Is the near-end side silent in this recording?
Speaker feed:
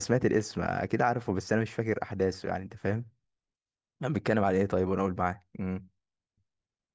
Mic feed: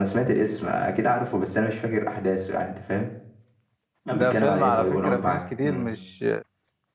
No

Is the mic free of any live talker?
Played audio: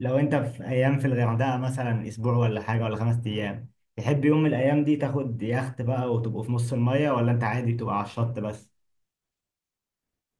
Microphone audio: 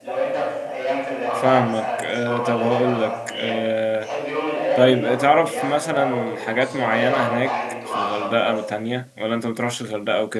No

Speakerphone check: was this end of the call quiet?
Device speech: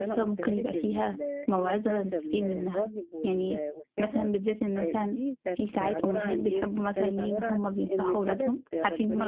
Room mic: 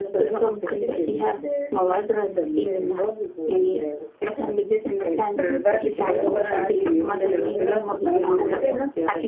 No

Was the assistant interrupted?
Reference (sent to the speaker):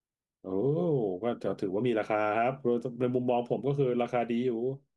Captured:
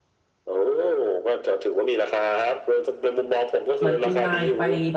Yes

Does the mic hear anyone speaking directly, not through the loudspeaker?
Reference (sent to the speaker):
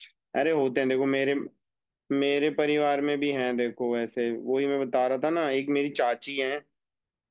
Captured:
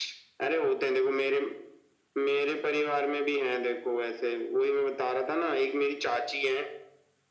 No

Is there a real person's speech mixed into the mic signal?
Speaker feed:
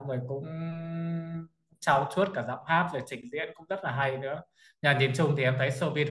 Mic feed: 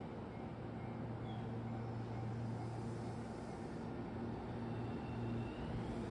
No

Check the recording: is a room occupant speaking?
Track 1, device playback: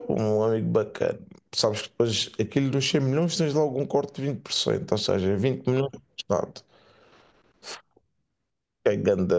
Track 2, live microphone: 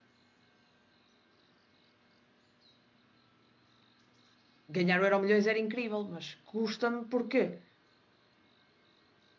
Yes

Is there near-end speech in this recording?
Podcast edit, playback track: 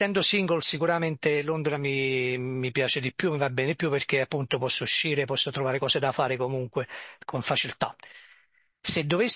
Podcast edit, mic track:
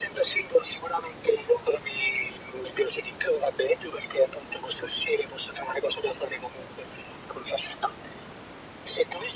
No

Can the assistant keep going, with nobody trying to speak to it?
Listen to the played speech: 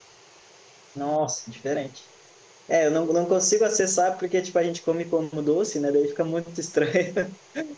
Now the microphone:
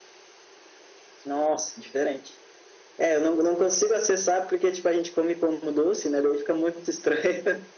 Yes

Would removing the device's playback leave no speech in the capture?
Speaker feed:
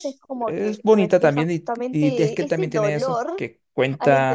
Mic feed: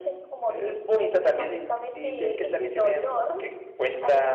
Yes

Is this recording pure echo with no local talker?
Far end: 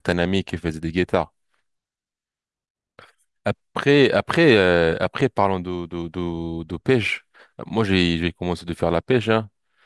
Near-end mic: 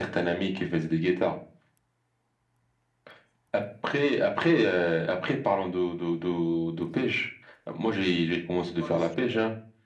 No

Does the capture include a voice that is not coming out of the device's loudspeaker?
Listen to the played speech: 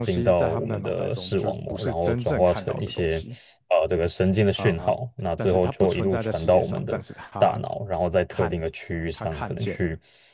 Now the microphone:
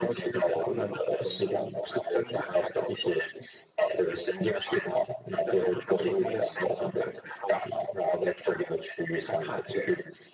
No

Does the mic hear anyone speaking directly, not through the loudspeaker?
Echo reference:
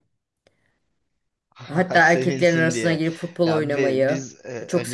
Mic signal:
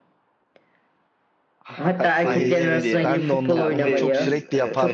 Yes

